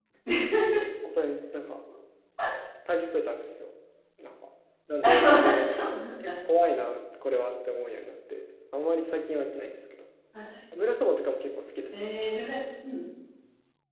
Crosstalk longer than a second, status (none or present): none